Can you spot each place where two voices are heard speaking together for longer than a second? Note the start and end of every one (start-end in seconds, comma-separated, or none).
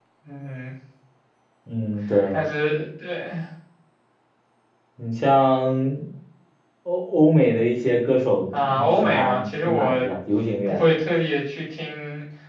8.5-10.1